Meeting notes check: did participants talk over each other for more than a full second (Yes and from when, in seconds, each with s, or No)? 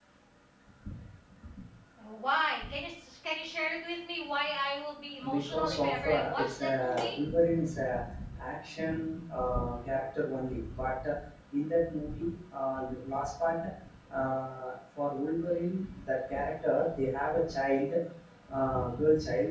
Yes, from 5.2 s